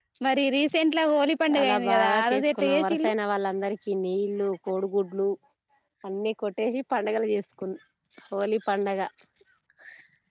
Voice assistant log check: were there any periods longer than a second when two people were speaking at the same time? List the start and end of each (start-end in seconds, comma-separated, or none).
1.5-3.1